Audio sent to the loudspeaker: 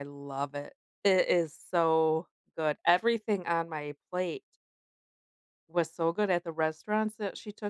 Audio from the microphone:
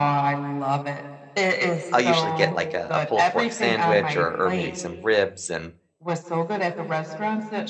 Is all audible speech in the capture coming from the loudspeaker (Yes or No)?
No